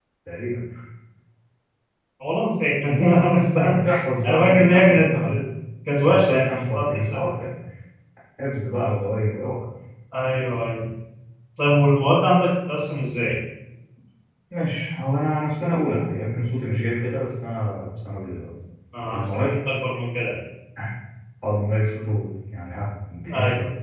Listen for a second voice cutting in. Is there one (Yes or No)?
Yes